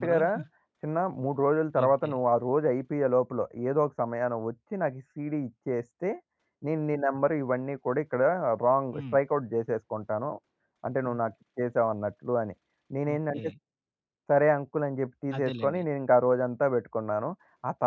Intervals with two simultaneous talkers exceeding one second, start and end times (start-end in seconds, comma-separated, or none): none